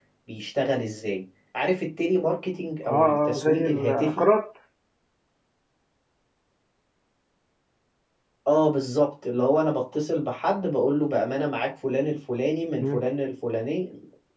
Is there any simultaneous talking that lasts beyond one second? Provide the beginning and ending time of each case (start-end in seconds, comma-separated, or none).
2.9-4.2